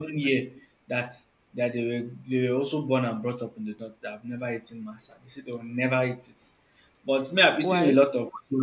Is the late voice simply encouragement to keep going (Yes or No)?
Yes